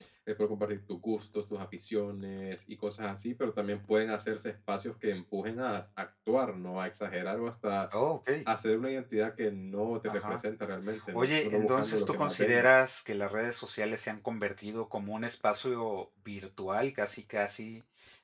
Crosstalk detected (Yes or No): Yes